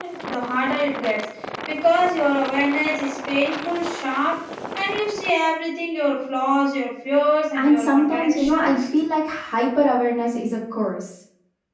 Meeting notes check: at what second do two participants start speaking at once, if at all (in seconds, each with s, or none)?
7.5 s